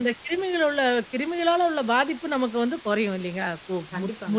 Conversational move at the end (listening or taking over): taking over